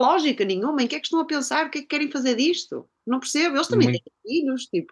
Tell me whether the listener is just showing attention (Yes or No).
Yes